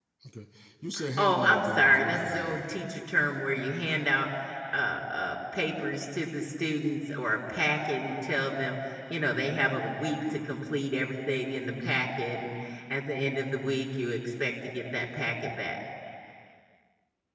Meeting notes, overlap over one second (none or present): present